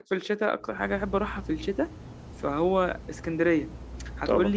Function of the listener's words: listening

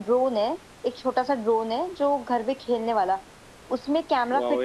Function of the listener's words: listening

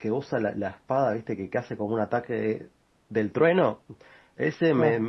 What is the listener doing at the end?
listening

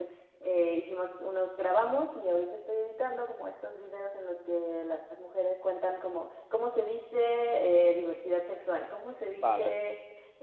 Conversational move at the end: listening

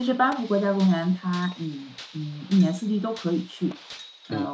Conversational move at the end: listening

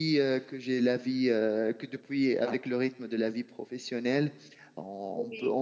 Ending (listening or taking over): listening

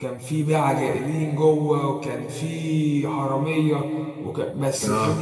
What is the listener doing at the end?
listening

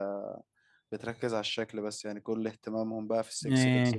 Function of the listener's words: listening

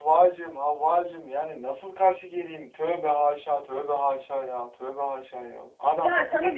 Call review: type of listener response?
taking over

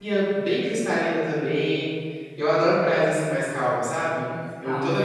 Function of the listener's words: listening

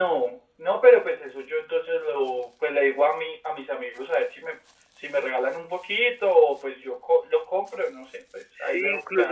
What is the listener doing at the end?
taking over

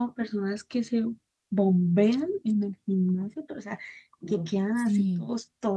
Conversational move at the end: listening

